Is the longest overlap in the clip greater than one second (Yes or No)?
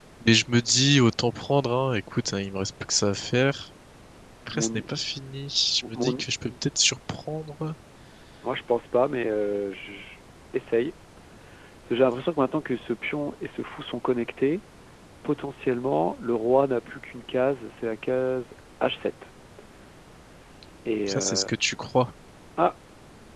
No